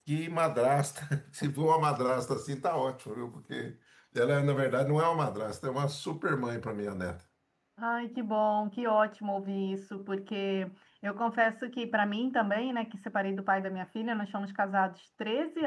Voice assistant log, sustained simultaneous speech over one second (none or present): none